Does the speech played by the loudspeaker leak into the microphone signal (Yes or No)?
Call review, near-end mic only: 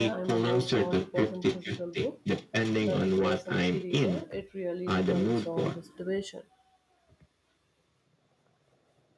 Yes